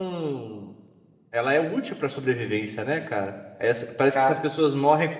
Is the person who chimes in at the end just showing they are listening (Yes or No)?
Yes